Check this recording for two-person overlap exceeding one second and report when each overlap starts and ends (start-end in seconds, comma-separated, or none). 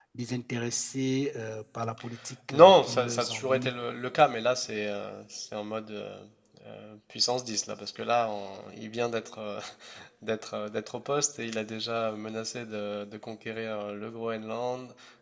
2.5-3.7